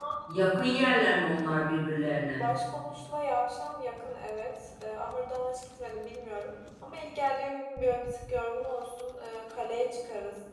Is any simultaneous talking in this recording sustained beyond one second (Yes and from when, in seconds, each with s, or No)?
No